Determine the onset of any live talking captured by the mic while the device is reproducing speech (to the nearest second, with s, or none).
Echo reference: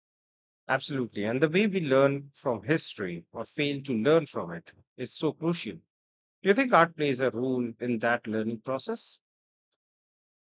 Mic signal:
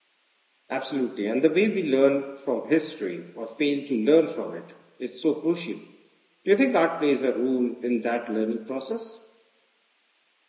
none